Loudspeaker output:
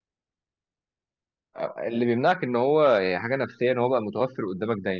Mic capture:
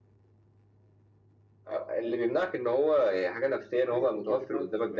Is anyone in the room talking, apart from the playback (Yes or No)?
Yes